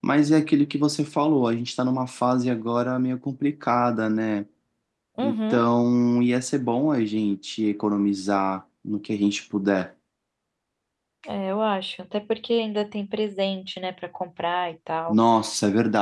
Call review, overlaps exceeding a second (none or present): none